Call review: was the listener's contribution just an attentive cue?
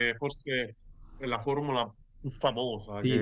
No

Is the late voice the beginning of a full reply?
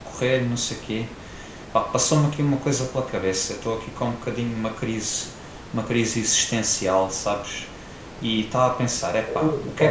No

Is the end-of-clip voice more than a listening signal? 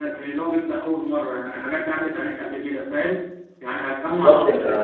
No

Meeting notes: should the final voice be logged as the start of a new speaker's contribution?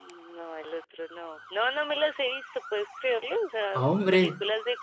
No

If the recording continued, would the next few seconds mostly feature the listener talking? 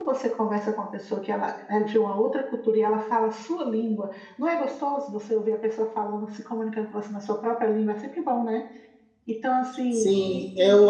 Yes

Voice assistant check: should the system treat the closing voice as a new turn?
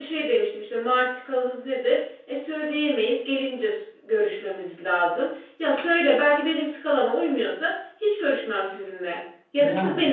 No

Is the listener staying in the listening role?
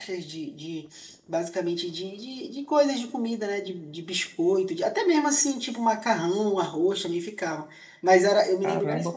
No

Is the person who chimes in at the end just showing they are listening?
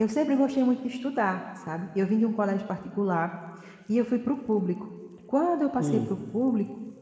Yes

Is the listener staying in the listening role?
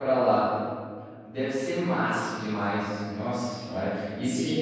No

